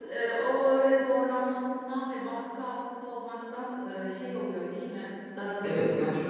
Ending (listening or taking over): taking over